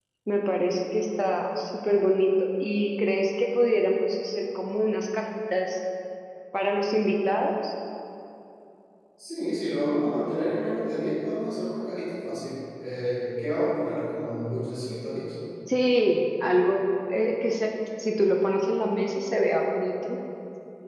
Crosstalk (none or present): none